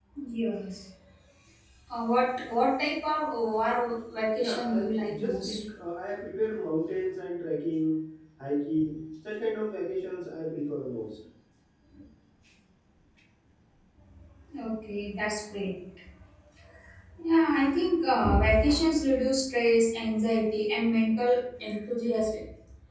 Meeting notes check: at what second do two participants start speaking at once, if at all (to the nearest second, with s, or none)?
4 s